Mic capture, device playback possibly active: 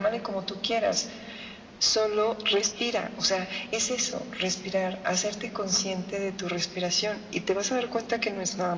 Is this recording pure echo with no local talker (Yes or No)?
Yes